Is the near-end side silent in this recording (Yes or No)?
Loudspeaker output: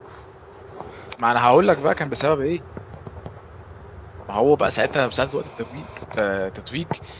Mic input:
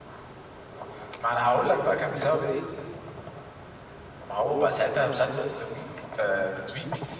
Yes